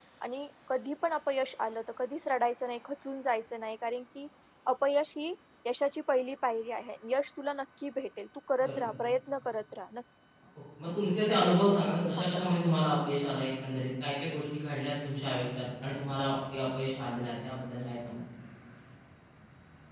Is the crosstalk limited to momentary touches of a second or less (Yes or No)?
No